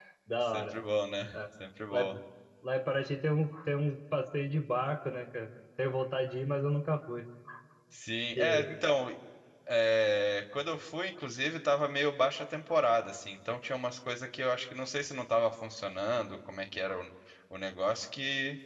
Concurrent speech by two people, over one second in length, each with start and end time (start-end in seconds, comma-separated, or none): none